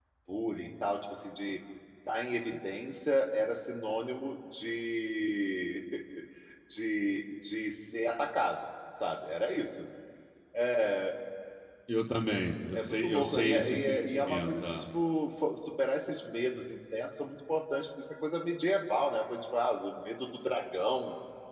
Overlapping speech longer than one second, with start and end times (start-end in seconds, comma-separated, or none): 12.7-14.8